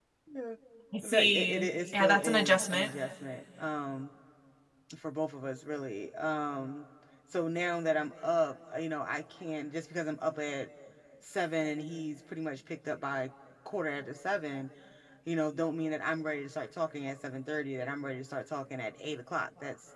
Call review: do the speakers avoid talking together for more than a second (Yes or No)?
No